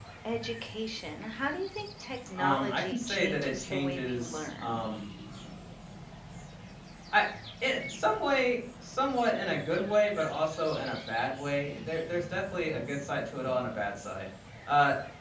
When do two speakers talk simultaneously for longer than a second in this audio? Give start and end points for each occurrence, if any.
2.4-4.8

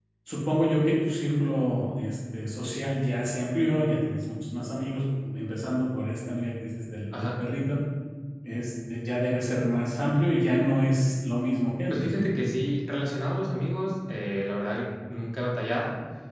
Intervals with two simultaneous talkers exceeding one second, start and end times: none

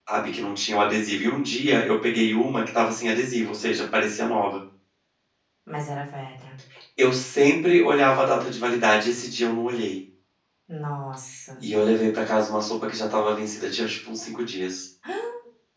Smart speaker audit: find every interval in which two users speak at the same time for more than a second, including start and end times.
none

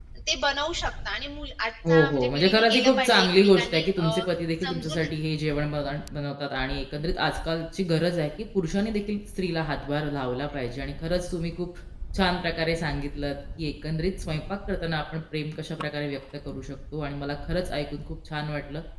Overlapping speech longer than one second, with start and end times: 1.9-4.2

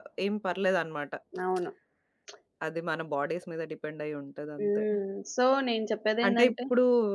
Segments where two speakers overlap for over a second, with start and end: none

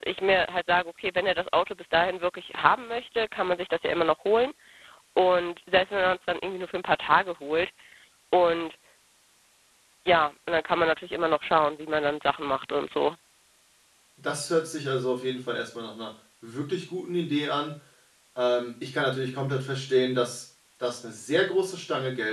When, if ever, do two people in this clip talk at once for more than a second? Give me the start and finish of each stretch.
none

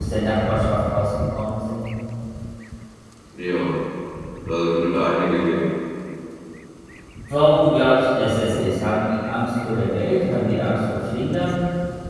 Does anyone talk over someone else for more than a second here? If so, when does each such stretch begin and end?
none

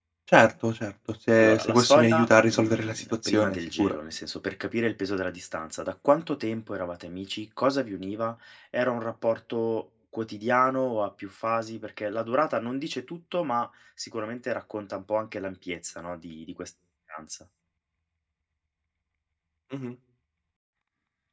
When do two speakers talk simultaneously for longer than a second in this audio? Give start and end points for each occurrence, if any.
1.4-4.0

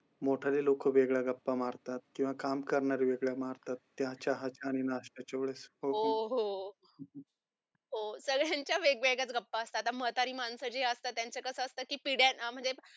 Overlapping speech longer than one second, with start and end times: none

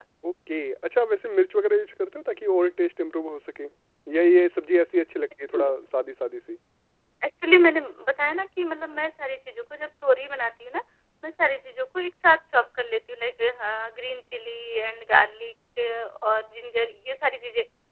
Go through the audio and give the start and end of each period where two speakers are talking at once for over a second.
none

